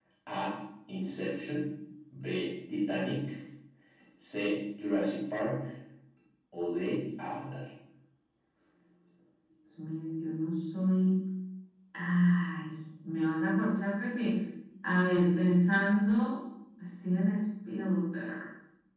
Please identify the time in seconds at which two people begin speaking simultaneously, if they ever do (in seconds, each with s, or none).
none